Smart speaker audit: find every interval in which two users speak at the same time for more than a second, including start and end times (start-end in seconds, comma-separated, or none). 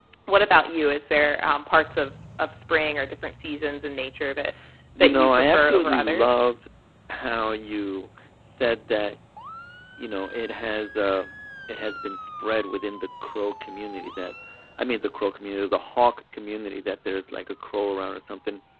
5.0-6.4